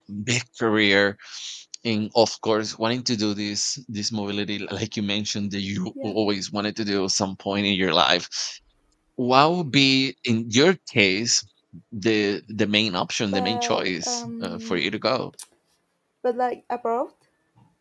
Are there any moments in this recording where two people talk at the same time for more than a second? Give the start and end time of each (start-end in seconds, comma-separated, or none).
13.3-14.8